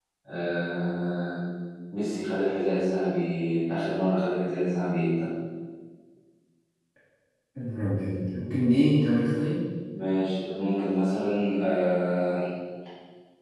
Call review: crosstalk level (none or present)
none